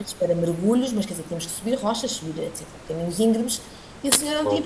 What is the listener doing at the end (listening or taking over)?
listening